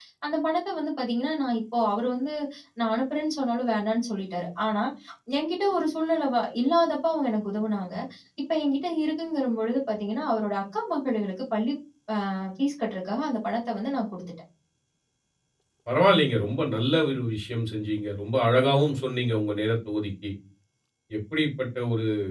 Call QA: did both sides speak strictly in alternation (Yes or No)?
Yes